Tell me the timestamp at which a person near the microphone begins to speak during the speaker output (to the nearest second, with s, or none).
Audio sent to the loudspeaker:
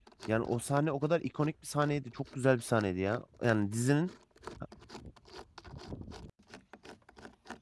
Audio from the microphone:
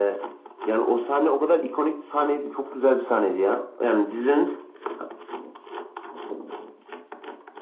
none